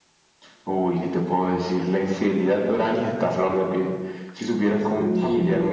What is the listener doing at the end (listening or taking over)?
listening